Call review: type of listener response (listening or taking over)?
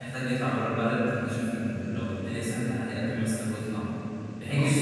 listening